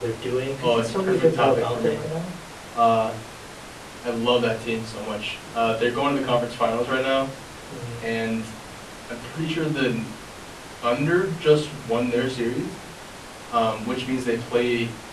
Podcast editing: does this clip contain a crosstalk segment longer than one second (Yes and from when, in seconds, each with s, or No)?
Yes, from 0.6 s